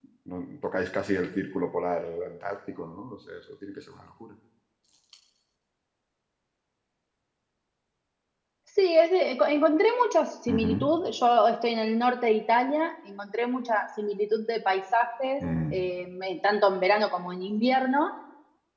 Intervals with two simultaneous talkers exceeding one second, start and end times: none

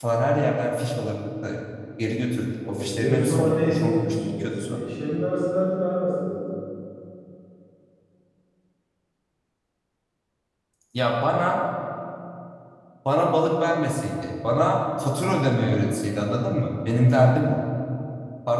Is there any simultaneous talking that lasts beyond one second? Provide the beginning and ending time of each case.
2.7-4.8

